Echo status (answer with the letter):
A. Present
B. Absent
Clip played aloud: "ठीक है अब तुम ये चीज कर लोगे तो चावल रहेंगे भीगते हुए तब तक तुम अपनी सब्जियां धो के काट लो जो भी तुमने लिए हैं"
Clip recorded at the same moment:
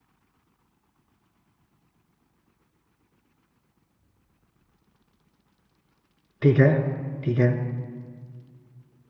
B